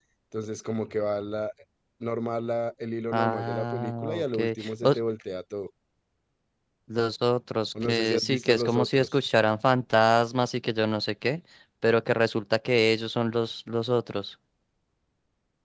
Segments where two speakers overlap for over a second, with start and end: 3.1-4.4, 7.8-9.2

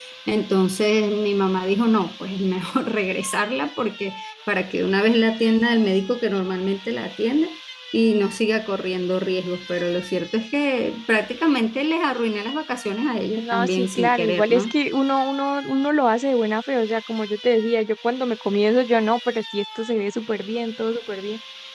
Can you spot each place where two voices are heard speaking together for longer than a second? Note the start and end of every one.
13.3-14.7

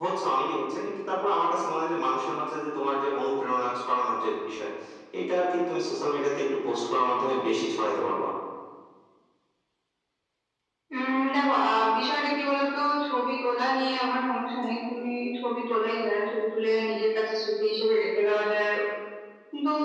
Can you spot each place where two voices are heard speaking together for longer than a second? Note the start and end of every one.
none

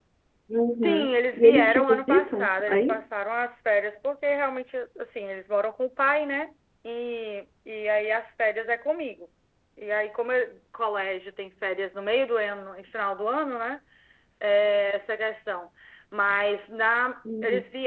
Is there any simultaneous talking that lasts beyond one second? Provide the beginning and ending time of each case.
0.8-3.0

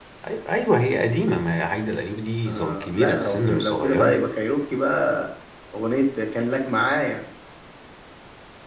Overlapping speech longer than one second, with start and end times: 2.5-4.2

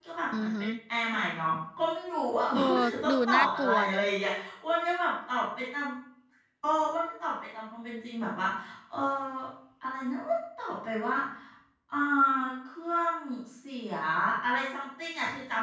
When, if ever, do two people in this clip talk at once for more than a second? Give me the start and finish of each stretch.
2.6-4.0

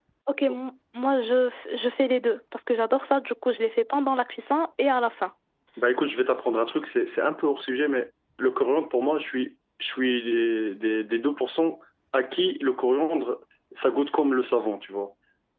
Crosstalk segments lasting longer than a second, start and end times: none

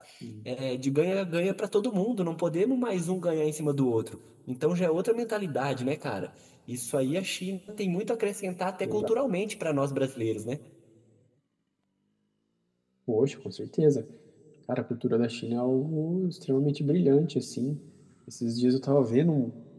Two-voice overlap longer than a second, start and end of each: none

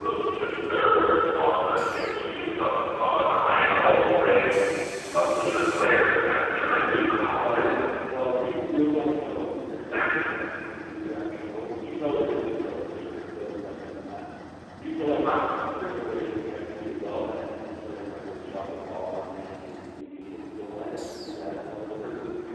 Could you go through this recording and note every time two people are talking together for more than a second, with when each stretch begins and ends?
6.5-7.8

